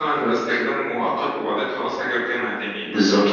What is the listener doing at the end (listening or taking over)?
taking over